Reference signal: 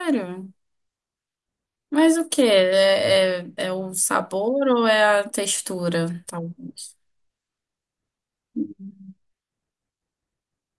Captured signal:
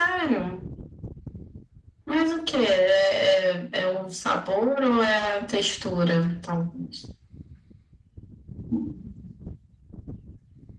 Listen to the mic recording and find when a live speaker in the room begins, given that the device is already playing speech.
none

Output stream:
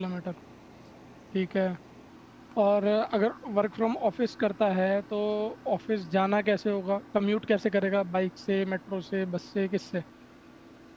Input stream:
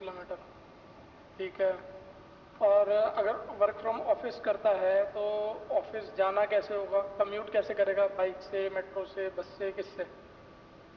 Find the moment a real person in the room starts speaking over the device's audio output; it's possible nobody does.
none

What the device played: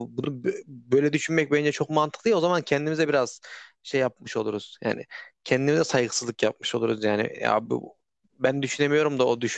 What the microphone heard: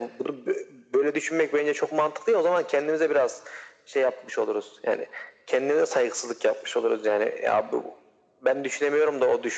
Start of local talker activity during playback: none

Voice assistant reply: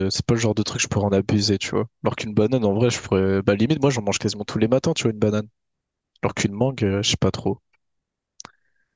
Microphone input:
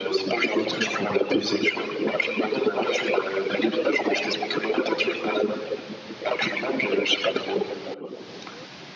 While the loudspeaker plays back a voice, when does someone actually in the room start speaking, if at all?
0.6 s

